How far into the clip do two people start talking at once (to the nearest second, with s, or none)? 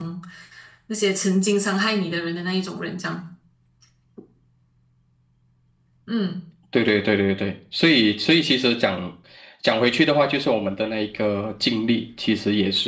none